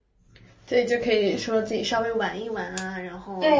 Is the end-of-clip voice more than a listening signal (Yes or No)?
Yes